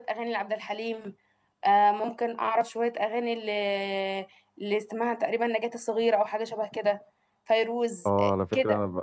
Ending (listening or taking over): taking over